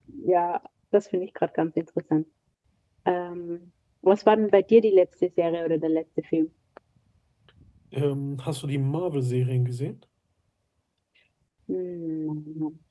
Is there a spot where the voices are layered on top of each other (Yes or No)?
No